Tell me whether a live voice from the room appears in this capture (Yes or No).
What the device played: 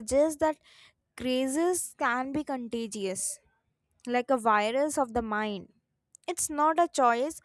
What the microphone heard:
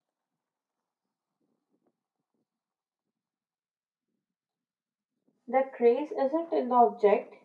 Yes